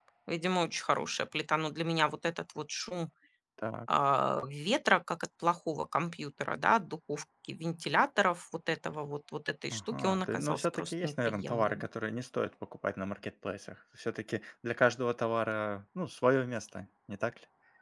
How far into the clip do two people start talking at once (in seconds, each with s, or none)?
9.7 s